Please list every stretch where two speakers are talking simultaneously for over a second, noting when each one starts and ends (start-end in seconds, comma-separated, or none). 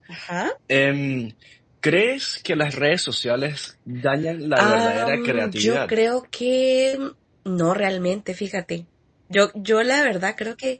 4.5-5.9